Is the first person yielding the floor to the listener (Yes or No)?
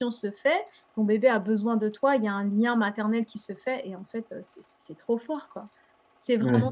No